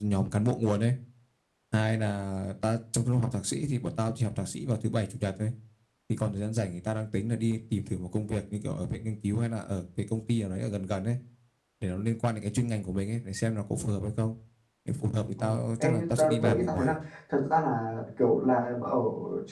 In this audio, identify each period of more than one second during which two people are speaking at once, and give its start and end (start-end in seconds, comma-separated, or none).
15.4-16.9